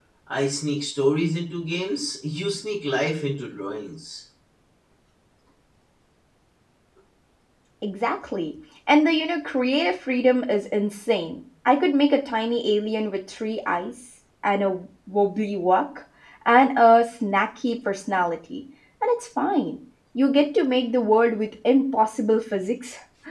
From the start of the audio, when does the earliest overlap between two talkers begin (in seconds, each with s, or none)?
none